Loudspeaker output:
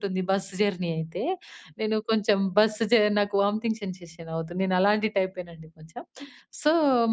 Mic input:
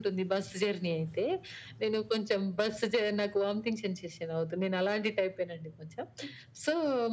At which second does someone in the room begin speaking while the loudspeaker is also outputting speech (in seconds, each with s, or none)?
none